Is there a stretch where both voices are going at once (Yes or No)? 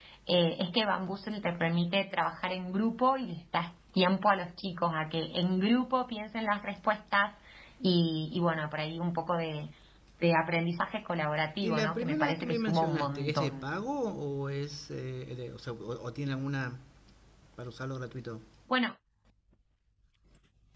Yes